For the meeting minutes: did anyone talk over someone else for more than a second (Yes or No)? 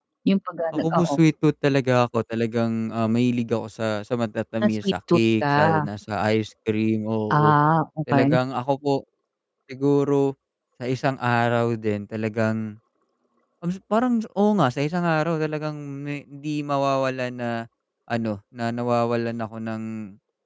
Yes